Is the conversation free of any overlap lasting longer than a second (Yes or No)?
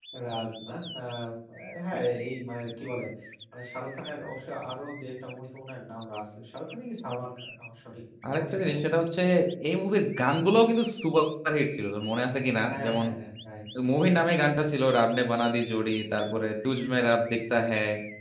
Yes